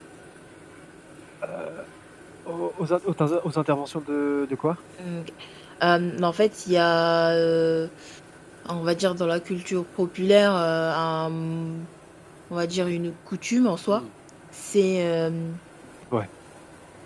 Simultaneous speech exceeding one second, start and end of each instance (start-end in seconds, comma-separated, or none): none